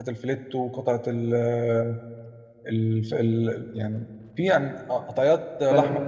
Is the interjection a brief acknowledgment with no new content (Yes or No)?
No